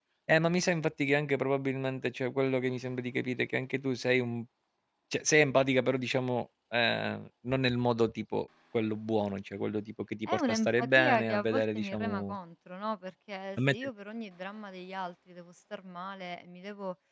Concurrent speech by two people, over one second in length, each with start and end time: 10.3-12.4

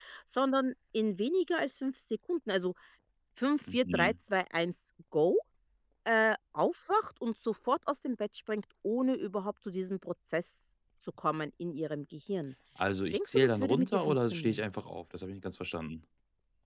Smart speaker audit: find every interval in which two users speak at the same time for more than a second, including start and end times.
13.1-14.7

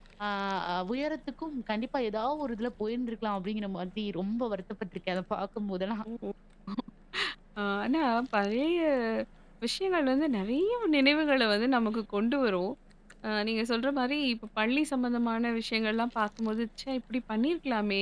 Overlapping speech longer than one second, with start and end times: none

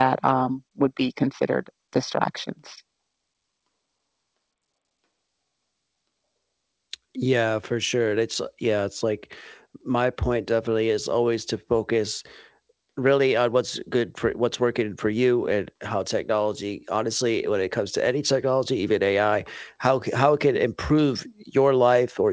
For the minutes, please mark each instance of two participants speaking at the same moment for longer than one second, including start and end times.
none

